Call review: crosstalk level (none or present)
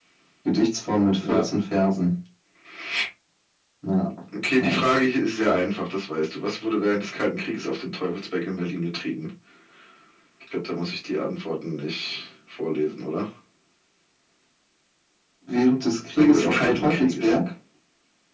present